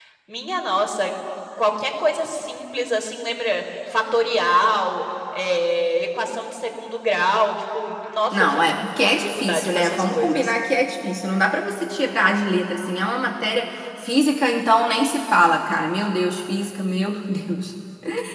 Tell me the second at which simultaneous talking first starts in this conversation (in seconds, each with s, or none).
8.3 s